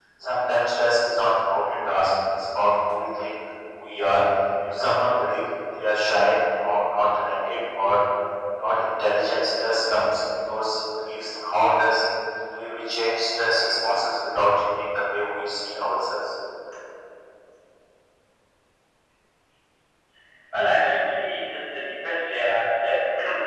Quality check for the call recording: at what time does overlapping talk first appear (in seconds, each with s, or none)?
none